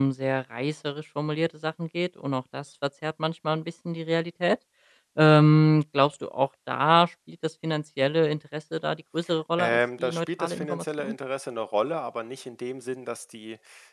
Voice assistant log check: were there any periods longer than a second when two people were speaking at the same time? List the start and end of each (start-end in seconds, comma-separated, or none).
9.6-11.1